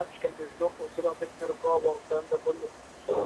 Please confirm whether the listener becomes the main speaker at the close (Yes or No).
No